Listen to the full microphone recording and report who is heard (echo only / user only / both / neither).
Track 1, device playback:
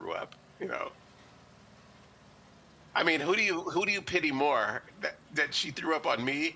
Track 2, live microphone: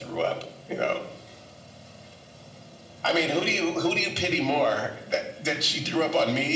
echo only